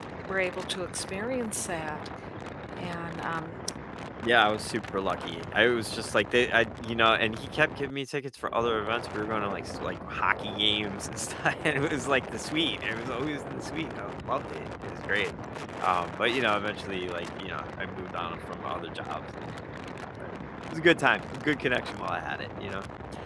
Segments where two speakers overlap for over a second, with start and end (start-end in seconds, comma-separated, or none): none